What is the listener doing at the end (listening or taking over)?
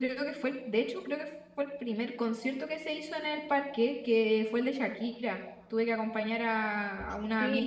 taking over